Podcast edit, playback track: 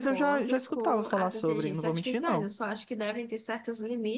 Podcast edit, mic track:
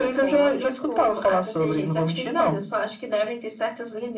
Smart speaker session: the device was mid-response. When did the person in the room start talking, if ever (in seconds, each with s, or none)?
none